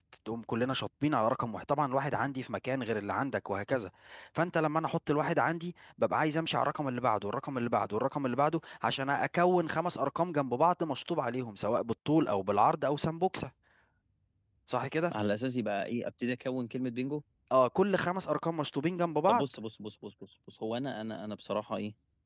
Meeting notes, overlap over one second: none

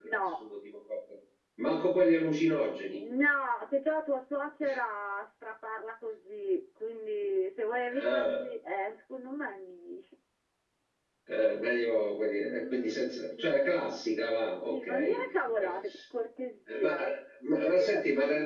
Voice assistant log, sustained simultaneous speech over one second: present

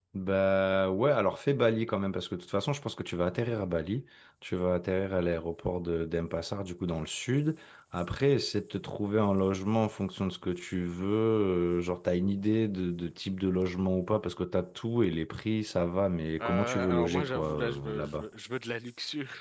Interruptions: present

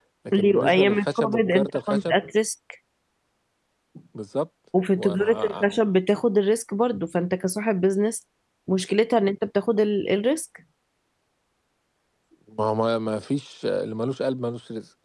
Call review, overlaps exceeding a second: present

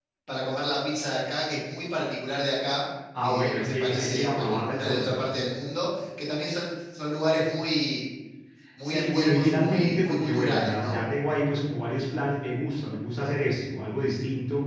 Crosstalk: present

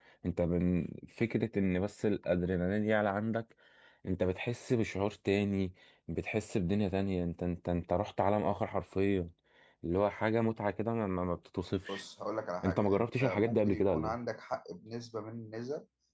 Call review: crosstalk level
present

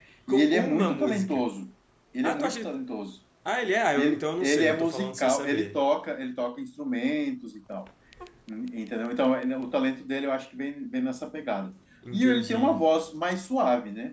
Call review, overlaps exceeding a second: present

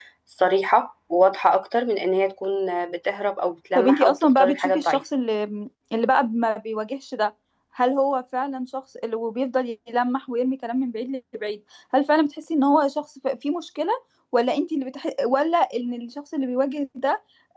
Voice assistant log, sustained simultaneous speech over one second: present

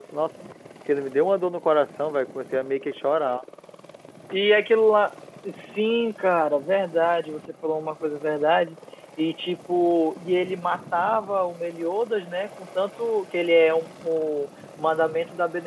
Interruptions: none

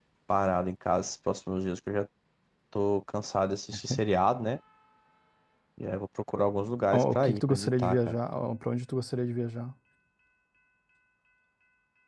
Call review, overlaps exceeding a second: present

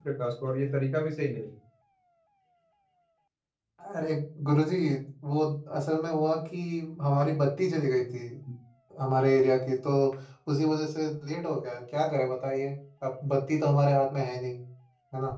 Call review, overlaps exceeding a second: none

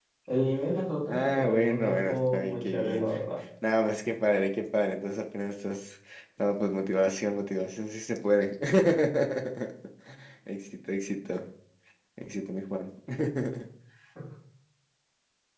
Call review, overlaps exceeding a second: present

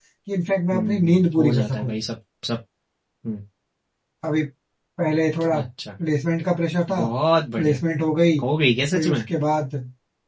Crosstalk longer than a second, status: present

